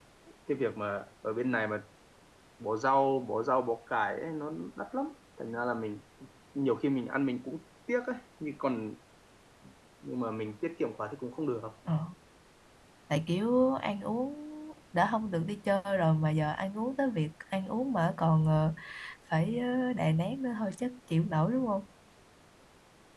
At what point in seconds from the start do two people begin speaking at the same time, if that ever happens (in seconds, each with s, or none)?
none